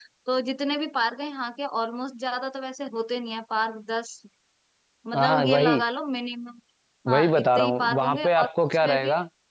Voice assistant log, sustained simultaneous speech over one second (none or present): present